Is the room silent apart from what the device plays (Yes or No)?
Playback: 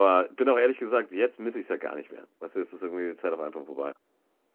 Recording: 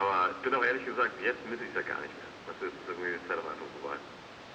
Yes